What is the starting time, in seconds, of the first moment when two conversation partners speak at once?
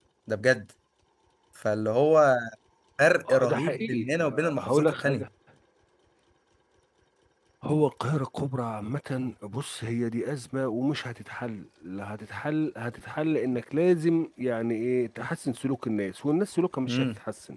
3.3 s

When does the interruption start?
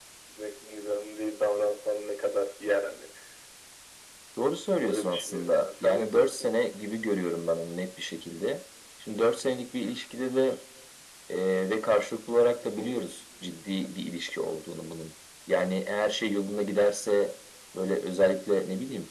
4.8 s

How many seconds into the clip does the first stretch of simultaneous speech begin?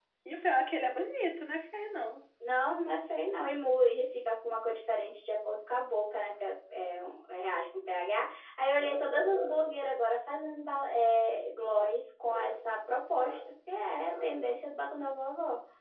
none

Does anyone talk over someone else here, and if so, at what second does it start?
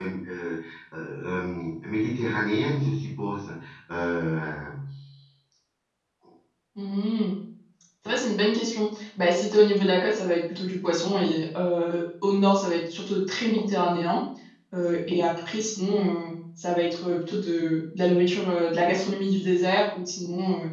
none

